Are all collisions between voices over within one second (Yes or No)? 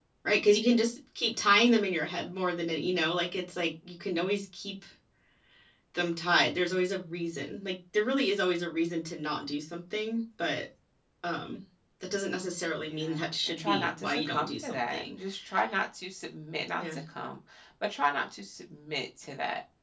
No